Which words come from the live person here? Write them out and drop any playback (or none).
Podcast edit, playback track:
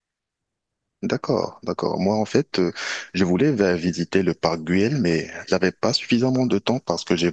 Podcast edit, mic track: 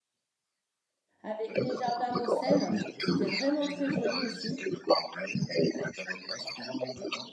avec les jardins Mossen. C'était vraiment très joli aussi.